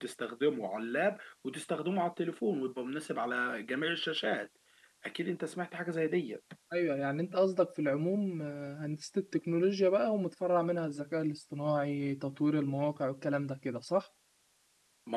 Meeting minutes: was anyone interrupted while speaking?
No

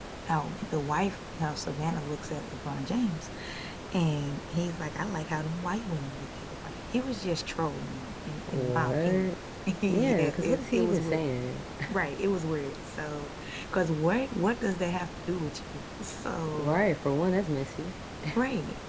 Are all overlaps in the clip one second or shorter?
No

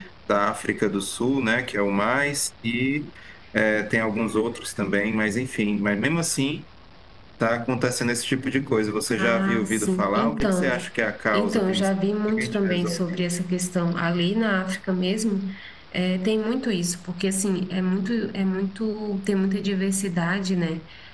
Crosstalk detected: Yes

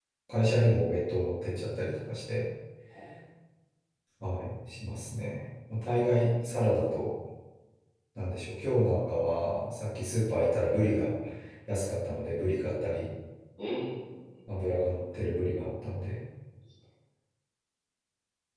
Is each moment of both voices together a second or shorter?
Yes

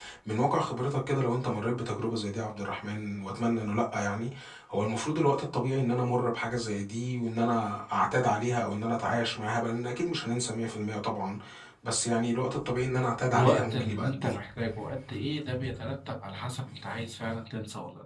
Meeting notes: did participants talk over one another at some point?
Yes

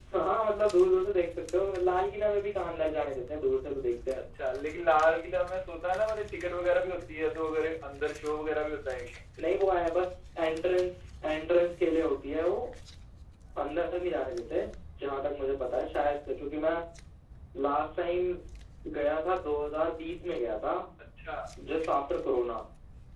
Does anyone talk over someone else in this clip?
No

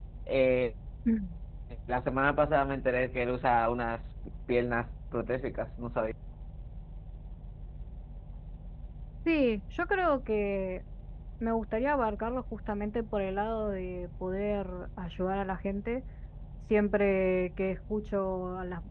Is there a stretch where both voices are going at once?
No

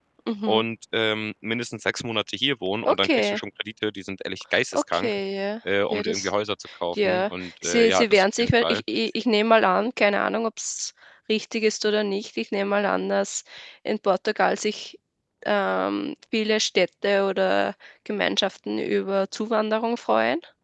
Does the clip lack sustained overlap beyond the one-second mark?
No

